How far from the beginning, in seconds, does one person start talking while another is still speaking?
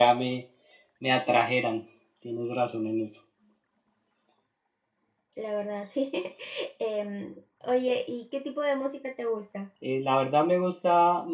none

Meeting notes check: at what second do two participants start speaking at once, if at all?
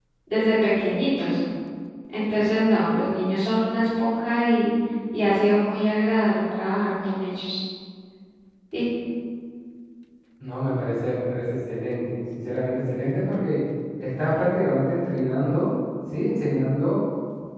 none

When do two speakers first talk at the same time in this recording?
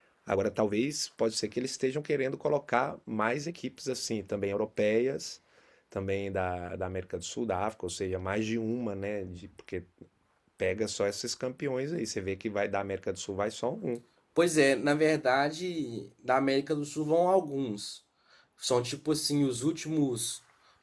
none

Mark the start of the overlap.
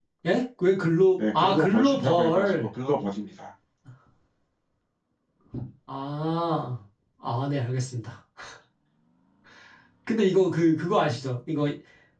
1.1 s

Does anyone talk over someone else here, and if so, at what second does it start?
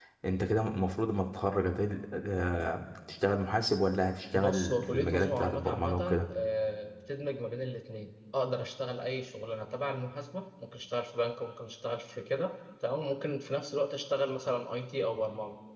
4.3 s

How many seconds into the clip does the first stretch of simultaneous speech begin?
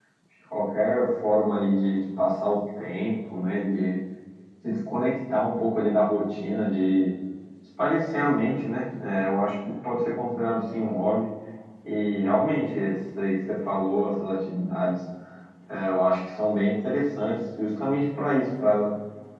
none

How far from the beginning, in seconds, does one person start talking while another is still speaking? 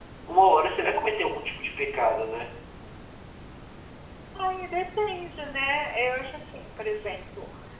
none

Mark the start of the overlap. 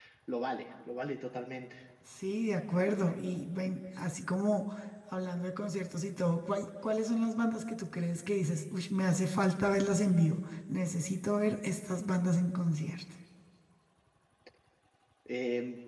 none

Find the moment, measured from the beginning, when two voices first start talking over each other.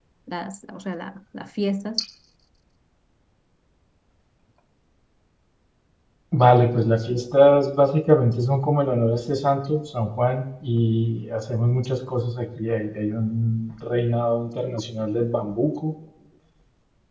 none

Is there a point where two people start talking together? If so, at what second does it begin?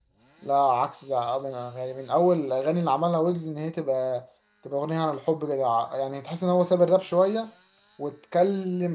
none

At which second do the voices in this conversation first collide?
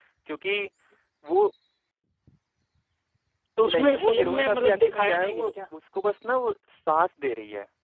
3.6 s

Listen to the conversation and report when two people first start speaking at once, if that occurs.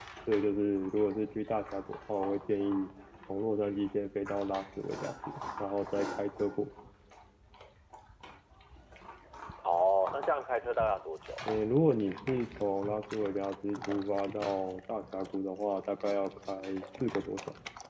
none

